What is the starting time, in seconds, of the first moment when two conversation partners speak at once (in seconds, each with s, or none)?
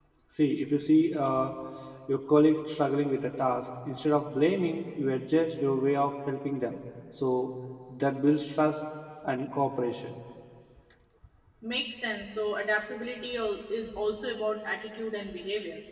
none